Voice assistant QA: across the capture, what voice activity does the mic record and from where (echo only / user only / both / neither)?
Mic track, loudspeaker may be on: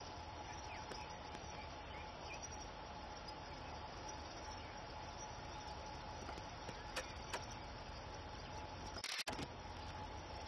neither